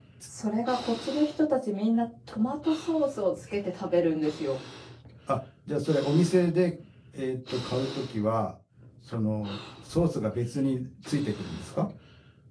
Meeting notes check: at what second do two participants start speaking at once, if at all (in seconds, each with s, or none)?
none